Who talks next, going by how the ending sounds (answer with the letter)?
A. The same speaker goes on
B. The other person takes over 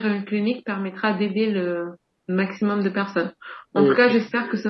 A